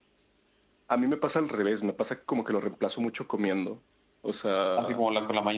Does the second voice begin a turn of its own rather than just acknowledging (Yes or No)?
Yes